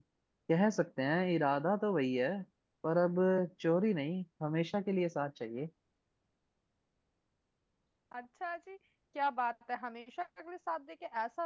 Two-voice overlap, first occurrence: none

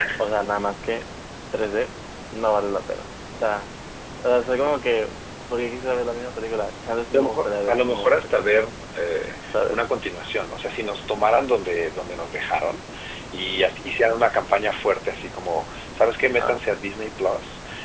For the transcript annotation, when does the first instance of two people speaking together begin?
7 s

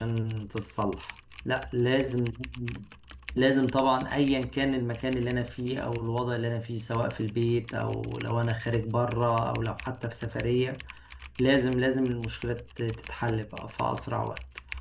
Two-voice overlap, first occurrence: none

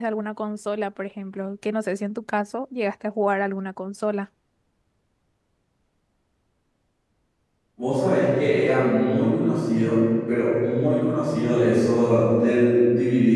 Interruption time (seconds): none

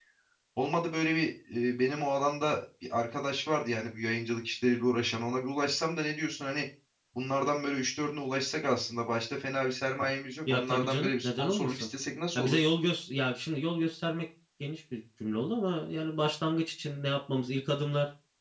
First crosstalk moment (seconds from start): 11 s

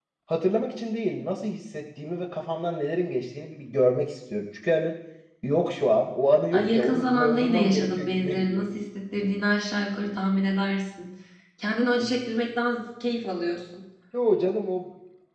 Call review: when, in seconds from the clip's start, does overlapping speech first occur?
7 s

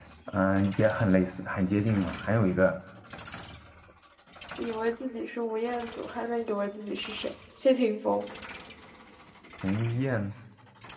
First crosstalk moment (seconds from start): none

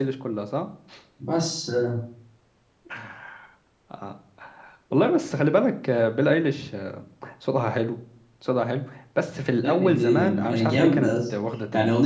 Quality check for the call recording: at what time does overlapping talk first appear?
10 s

